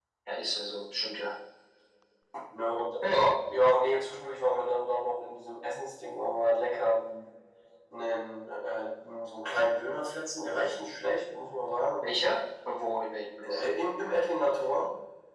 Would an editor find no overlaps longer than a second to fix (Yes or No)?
Yes